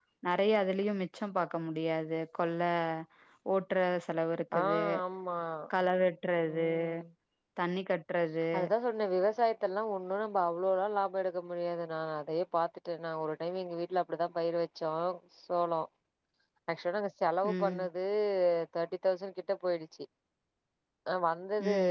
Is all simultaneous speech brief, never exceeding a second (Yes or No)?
Yes